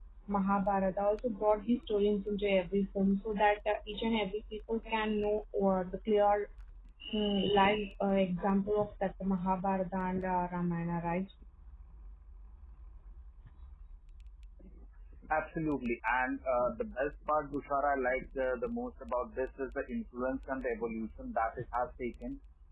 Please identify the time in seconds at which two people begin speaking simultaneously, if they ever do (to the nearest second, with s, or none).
none